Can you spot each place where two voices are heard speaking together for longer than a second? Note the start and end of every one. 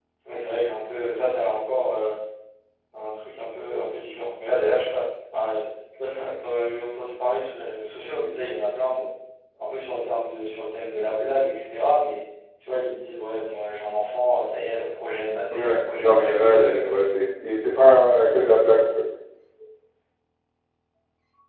15.5-16.8

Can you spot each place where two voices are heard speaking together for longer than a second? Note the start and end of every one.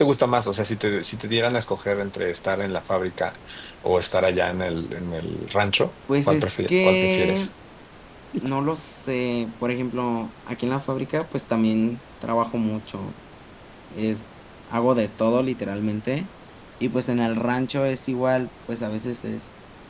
6.3-7.5

